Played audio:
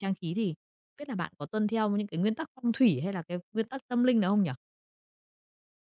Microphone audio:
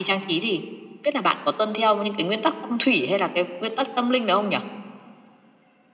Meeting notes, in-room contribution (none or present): none